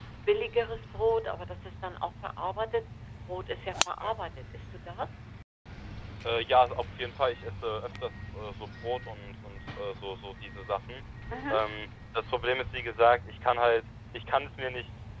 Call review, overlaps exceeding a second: none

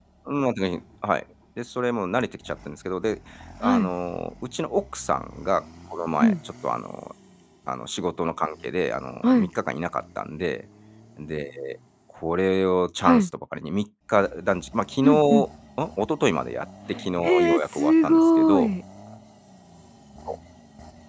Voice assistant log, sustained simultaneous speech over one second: present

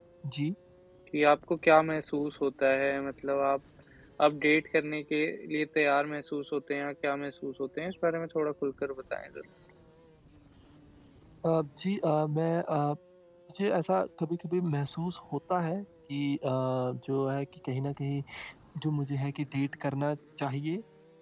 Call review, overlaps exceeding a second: none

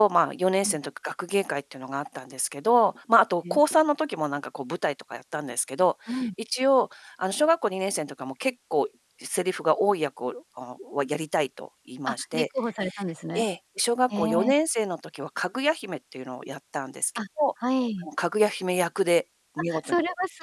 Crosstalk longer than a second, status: none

